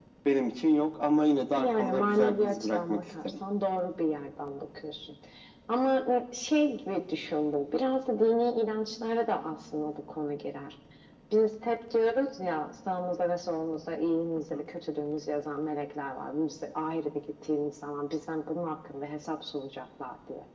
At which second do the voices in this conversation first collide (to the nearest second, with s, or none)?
2 s